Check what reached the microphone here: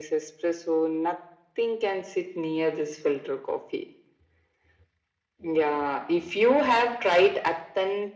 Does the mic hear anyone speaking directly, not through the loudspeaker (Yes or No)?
No